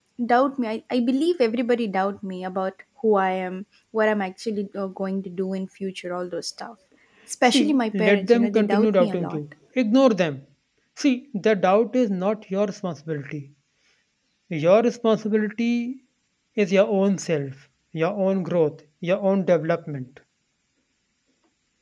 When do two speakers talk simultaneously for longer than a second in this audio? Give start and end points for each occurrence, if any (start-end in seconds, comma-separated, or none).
7.4-9.4